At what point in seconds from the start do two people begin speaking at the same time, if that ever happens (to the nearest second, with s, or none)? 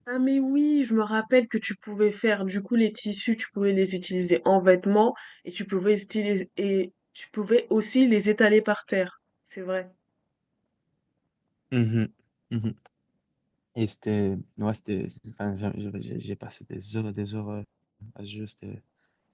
none